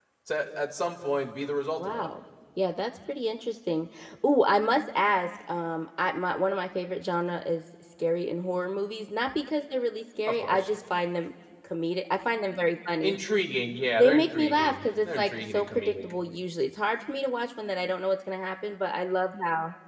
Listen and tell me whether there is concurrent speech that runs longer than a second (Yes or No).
Yes